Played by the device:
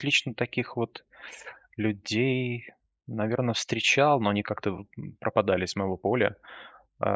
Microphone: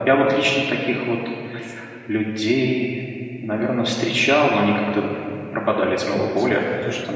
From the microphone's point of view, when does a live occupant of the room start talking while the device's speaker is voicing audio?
6.1 s

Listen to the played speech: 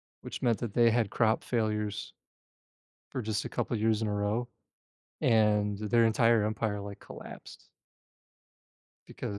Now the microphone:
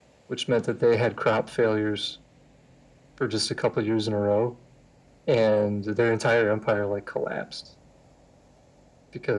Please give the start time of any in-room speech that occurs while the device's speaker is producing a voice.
none

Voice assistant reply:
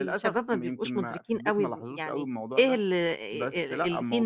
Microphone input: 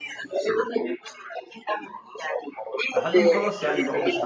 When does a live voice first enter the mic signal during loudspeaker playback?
2.9 s

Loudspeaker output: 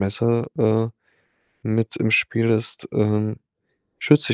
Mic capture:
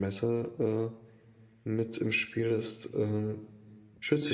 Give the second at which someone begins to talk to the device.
none

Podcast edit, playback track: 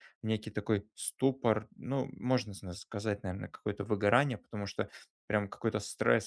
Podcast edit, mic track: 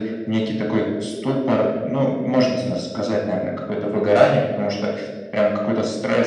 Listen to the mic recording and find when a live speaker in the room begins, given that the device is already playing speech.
none

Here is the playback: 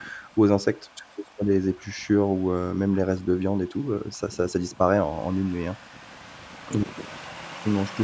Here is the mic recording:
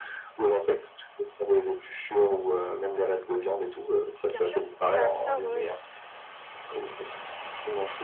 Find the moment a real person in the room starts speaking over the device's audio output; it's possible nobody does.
4.2 s

